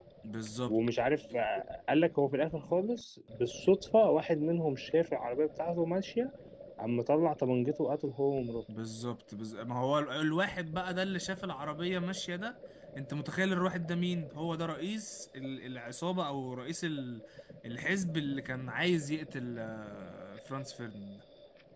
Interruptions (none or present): none